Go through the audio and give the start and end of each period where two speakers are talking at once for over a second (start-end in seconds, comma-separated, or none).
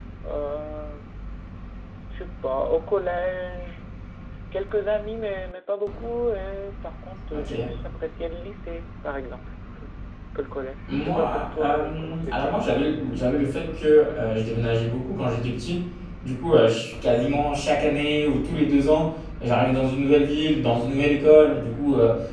10.9-12.6